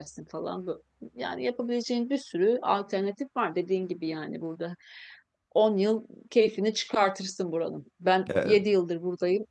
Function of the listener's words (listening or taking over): listening